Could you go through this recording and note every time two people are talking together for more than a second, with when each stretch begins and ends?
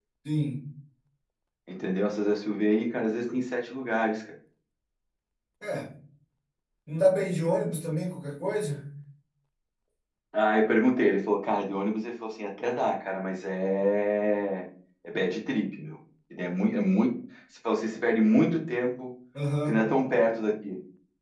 none

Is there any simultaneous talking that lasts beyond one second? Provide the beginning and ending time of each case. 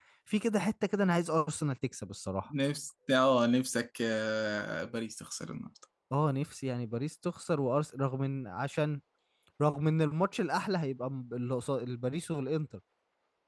none

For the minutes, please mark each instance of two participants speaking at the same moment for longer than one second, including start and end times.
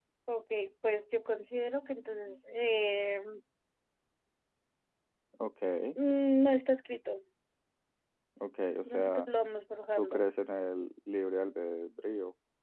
none

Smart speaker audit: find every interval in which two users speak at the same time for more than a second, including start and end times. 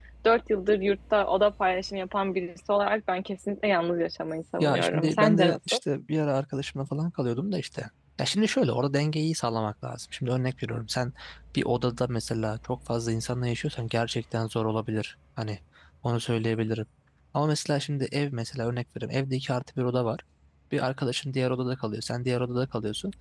4.6-5.8

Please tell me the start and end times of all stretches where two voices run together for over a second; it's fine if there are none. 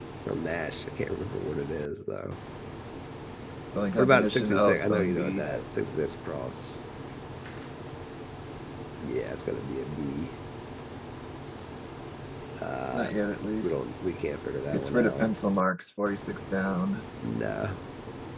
4.0-5.5

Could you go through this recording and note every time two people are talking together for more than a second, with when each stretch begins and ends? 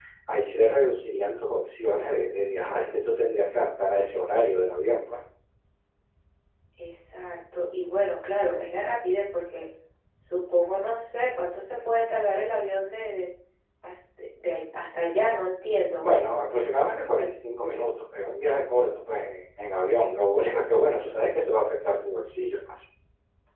none

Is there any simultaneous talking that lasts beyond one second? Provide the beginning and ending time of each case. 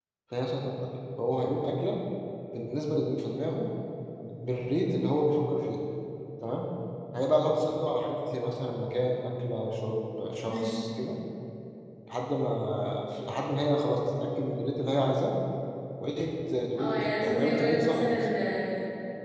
16.8-18.3

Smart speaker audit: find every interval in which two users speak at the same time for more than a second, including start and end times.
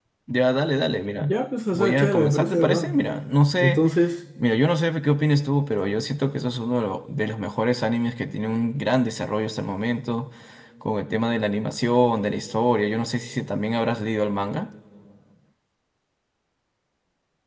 1.7-3.0

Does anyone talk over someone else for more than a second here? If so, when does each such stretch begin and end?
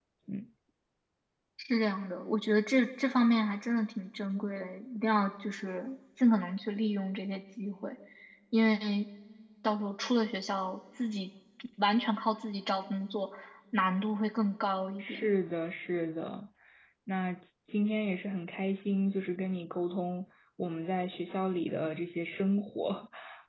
none

